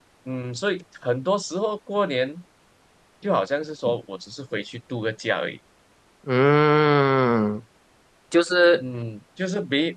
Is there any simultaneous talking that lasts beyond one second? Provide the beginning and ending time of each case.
none

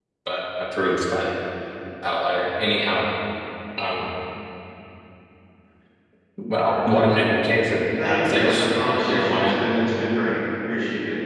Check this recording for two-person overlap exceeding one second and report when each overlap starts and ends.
8.0-9.6

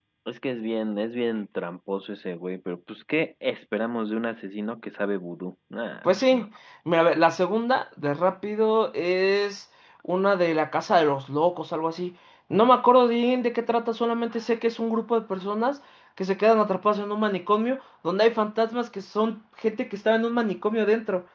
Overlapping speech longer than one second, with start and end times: none

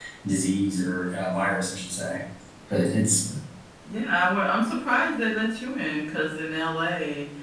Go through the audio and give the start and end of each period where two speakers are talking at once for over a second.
none

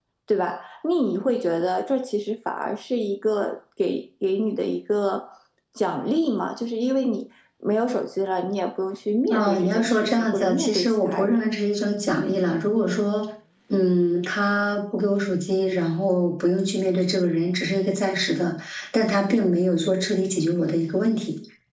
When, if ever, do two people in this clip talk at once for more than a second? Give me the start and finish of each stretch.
9.3-11.4

